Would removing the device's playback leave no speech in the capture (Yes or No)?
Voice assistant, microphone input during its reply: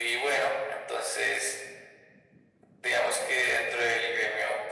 Yes